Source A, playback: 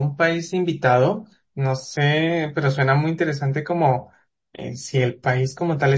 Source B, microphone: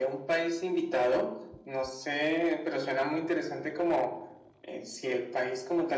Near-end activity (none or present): none